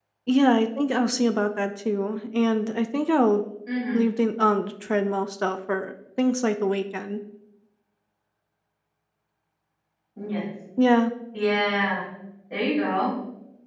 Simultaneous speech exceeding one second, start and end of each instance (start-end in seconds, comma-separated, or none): none